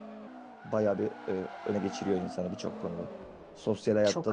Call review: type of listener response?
listening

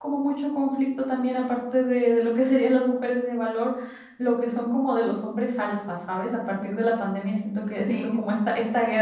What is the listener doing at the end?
listening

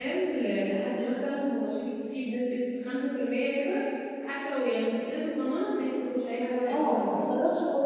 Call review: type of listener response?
taking over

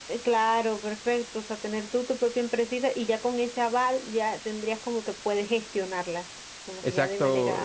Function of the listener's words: taking over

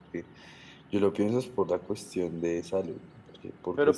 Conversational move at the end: taking over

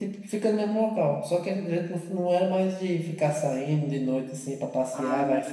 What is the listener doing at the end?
taking over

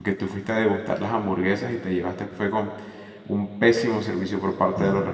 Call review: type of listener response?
listening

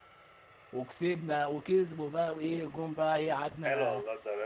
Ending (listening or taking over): taking over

